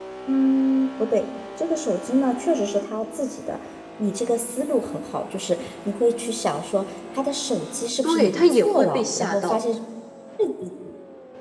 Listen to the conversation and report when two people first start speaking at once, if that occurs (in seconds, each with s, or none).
8.0 s